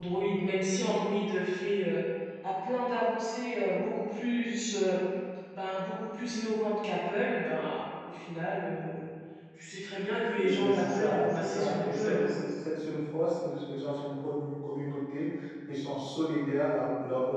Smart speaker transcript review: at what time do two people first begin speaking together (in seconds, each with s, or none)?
10.6 s